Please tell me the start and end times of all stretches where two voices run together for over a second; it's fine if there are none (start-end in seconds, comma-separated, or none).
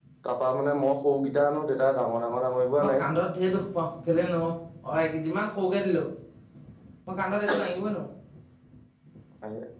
none